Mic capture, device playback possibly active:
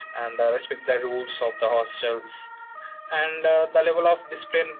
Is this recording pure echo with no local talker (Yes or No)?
Yes